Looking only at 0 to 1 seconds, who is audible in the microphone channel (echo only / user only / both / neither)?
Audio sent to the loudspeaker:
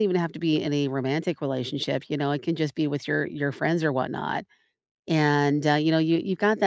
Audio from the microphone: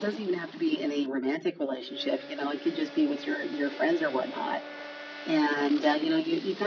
echo only